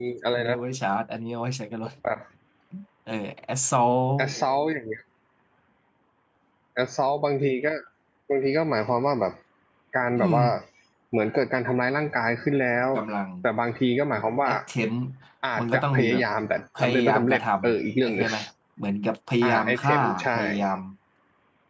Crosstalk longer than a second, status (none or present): present